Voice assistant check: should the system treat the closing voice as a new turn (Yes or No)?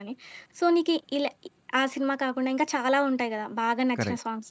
No